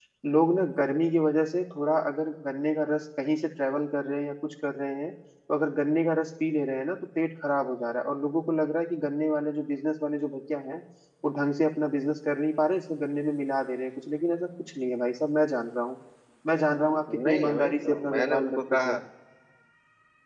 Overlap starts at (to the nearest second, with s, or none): 17 s